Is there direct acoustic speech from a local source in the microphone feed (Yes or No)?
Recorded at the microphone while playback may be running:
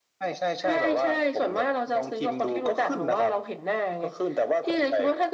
No